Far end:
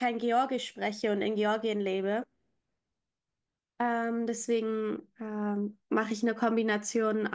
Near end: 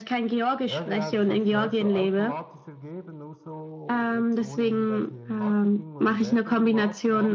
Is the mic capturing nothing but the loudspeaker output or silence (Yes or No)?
No